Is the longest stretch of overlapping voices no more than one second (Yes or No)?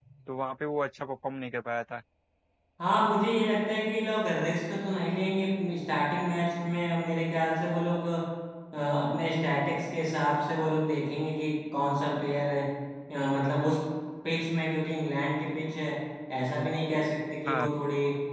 Yes